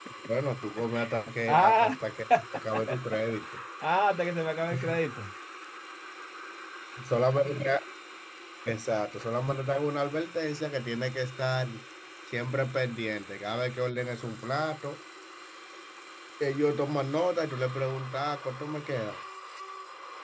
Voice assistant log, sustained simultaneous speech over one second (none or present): none